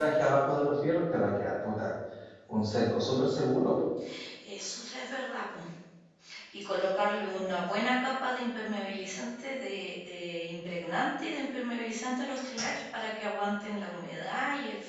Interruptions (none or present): none